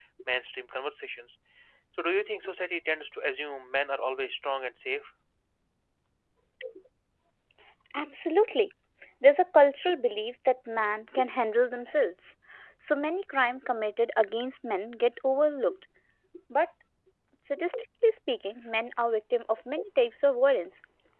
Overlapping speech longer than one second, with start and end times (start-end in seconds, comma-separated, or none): none